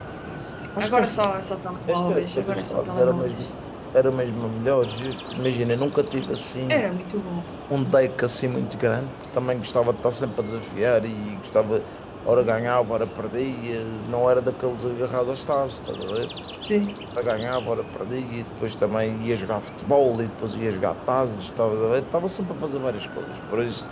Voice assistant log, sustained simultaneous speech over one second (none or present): present